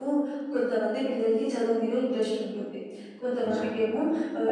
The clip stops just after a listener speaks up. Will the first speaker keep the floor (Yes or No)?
Yes